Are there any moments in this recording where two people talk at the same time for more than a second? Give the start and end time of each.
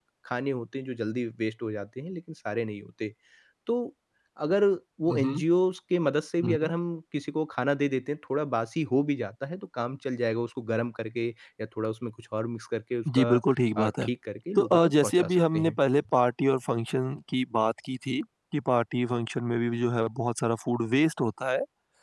14.6-15.8

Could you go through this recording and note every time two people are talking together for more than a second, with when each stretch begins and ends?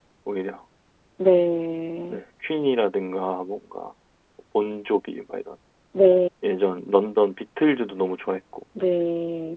none

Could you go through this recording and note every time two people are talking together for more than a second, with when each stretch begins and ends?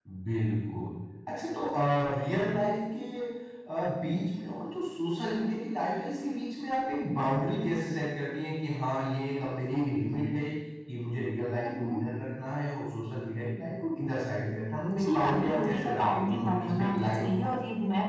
14.9-17.3

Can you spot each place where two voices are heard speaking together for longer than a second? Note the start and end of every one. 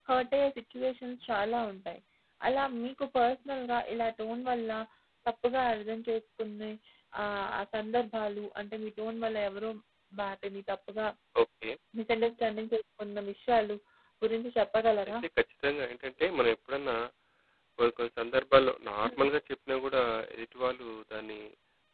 none

